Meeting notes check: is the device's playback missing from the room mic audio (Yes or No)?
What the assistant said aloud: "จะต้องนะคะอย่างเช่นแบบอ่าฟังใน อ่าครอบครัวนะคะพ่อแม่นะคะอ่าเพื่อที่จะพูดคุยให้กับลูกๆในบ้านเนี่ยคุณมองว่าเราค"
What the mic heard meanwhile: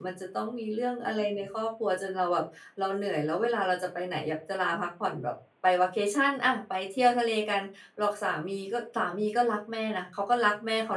Yes